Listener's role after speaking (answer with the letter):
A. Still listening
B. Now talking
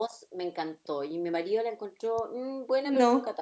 A